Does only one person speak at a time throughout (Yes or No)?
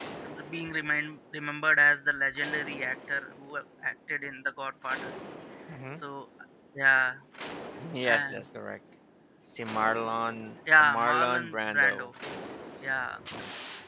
No